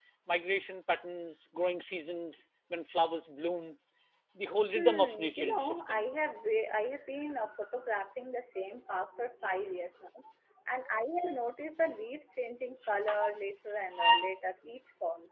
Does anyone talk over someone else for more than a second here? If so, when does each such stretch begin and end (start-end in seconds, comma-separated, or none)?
4.8-6.1